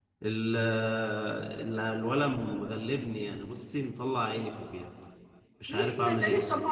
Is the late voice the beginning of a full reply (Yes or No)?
Yes